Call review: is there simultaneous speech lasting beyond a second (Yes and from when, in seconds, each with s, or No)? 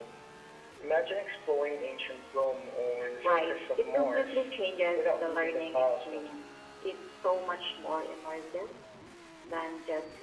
Yes, from 3.2 s